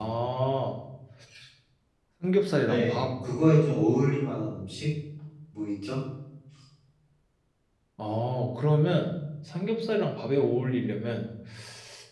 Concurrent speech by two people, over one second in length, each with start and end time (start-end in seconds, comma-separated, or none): none